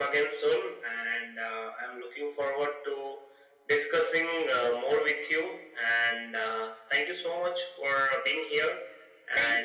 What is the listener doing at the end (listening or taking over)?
taking over